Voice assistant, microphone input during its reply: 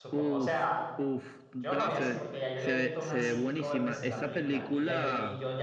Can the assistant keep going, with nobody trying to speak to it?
No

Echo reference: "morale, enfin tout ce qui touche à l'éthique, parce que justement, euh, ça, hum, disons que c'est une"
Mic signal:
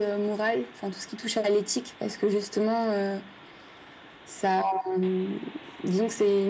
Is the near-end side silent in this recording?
Yes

